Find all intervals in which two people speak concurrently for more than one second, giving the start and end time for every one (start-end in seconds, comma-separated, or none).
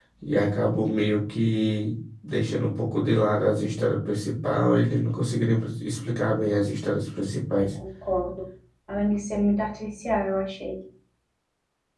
none